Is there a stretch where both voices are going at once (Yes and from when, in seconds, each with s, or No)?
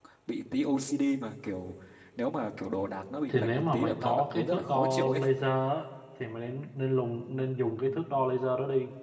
Yes, from 3.3 s